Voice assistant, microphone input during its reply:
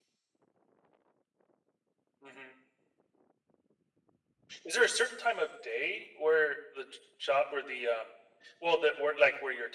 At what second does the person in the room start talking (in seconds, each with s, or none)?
none